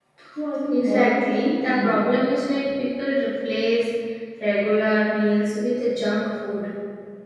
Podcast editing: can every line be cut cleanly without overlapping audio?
No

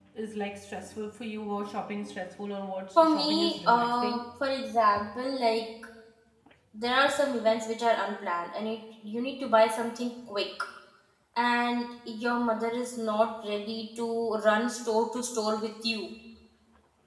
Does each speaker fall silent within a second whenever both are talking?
No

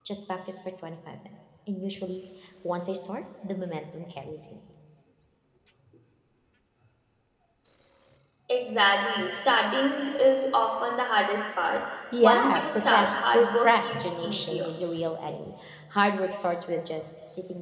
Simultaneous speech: Yes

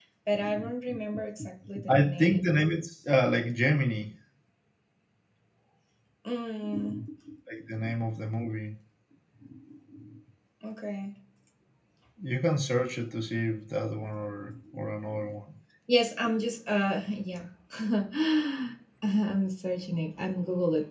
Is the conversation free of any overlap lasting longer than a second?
Yes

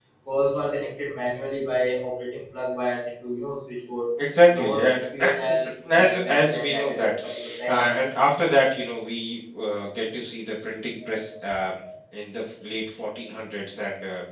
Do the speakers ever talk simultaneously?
Yes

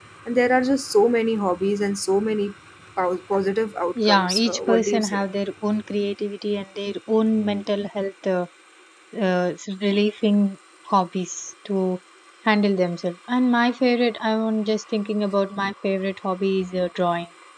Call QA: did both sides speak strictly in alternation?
No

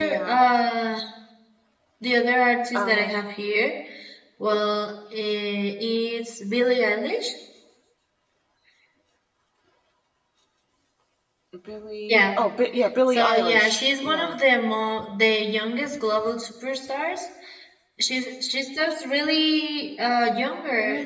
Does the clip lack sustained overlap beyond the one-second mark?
No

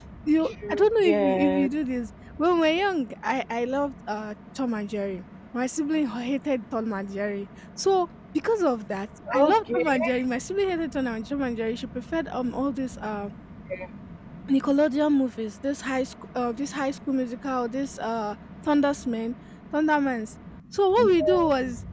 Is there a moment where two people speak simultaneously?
Yes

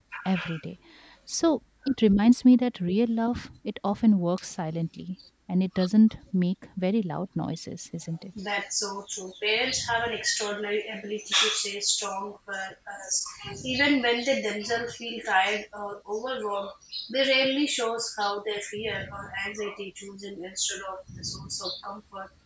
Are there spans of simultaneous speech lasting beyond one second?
No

